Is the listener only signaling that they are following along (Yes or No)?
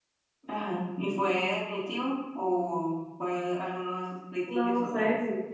No